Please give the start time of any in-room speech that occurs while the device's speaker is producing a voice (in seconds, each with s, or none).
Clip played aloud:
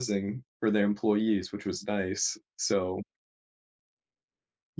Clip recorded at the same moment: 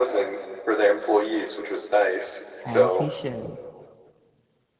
2.7 s